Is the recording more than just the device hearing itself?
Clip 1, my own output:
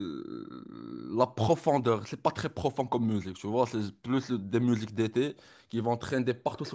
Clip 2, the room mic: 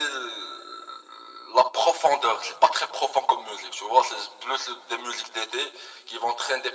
No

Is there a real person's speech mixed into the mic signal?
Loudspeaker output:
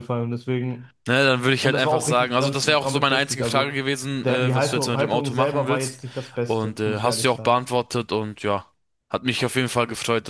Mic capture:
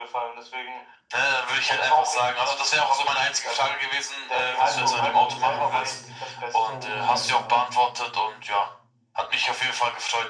Yes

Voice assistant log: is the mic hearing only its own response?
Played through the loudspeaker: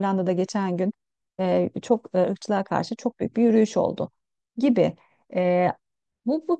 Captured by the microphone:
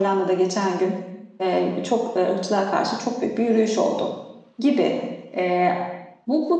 Yes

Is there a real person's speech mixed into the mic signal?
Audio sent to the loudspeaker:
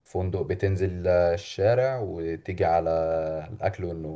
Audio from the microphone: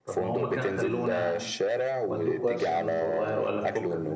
Yes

